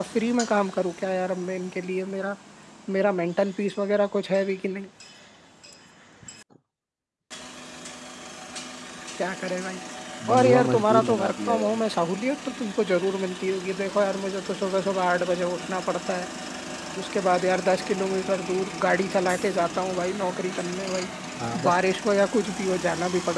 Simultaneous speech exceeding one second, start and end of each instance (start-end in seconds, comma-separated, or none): 10.3-11.8